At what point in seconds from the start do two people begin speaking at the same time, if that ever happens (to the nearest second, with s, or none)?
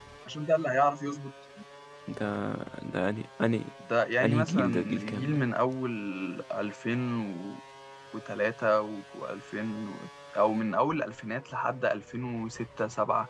4 s